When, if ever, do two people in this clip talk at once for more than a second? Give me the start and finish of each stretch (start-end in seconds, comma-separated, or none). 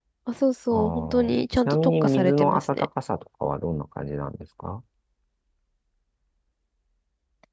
0.7-2.8